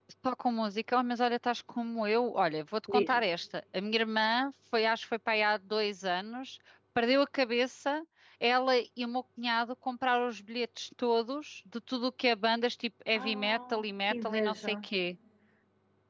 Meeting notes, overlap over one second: present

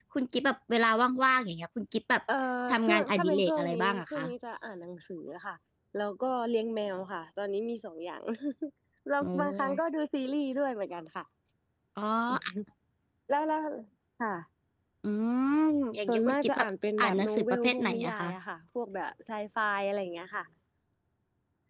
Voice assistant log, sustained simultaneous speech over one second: present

